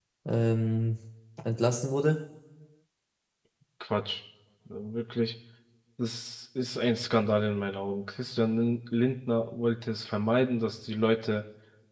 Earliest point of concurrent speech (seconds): none

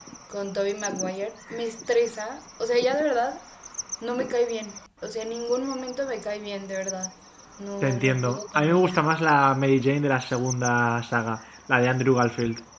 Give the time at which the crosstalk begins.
8 s

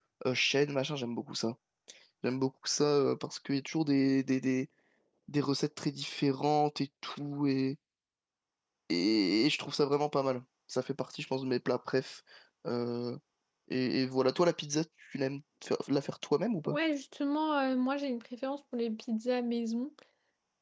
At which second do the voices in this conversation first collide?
none

